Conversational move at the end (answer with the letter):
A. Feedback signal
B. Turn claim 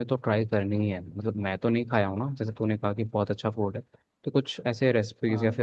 A